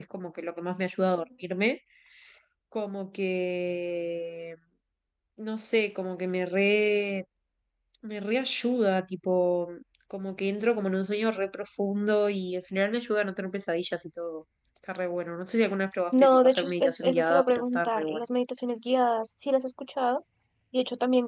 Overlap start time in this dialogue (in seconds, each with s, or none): 16.1 s